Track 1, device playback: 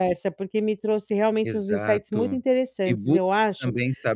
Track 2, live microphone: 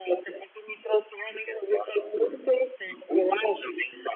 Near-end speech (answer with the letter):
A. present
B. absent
B